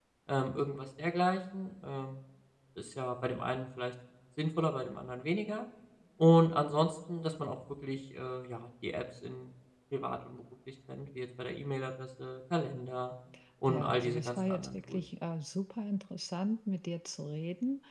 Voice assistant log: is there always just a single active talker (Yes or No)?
No